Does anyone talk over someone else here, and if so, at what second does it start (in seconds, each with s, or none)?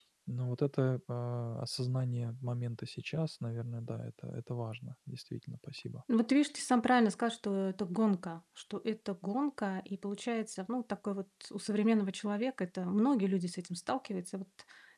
none